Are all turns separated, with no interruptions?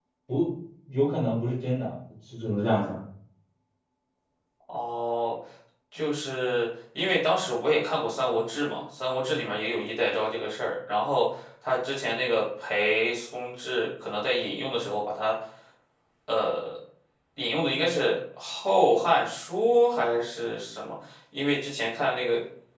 Yes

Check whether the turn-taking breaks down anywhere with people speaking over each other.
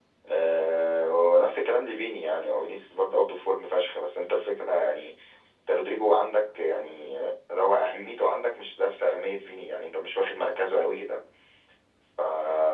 No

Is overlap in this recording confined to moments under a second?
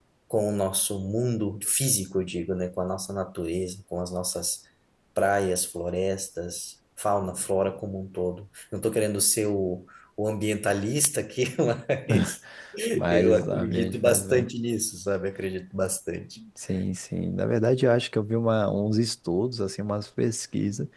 No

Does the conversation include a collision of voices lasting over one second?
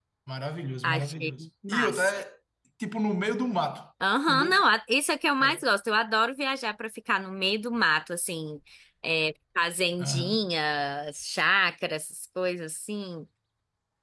Yes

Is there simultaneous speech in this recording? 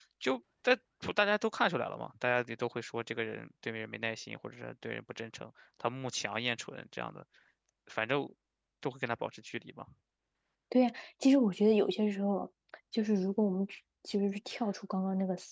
No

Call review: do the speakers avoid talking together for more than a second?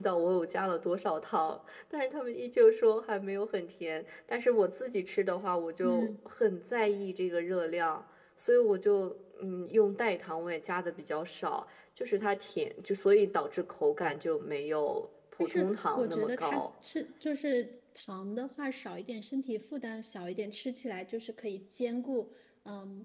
No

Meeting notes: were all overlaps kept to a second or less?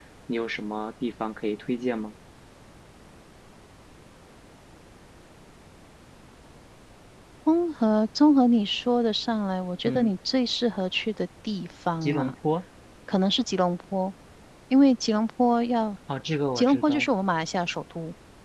Yes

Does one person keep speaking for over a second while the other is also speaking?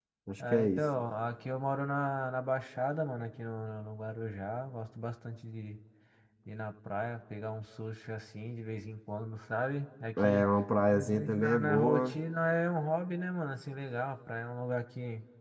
Yes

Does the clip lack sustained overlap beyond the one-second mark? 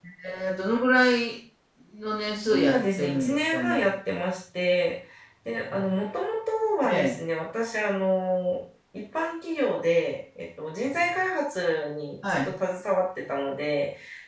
No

